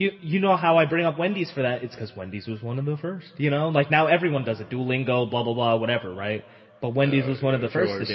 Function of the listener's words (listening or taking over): taking over